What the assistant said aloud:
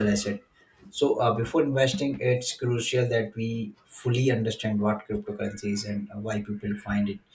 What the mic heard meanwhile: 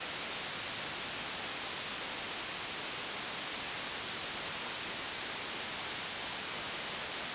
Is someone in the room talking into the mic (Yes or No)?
No